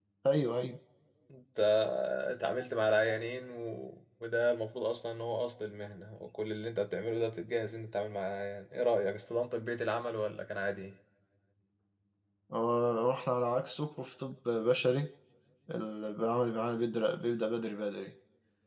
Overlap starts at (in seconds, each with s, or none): none